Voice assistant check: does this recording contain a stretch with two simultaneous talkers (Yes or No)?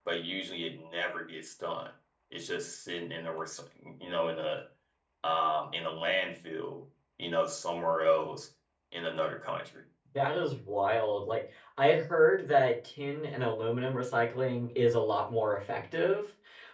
No